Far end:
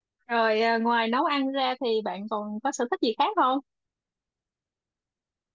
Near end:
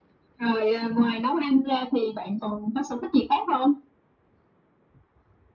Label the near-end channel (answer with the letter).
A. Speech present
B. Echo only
B